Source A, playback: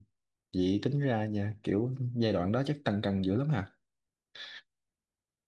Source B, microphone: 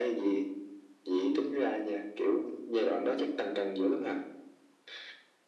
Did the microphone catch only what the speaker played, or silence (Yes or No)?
Yes